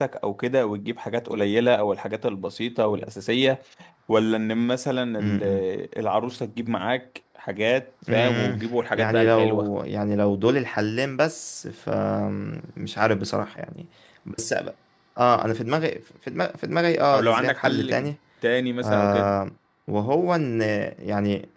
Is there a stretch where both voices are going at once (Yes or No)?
Yes